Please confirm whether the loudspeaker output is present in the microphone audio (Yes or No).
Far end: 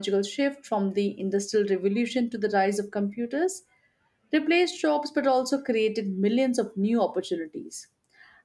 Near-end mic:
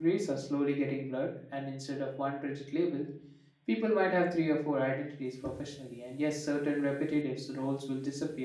No